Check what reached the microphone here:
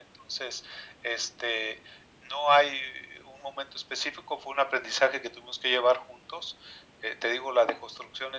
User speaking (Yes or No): No